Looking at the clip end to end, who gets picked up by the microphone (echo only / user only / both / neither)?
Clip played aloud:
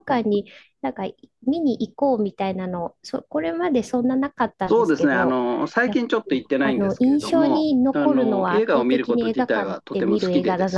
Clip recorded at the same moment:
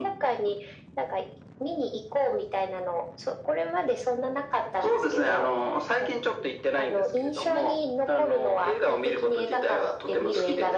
echo only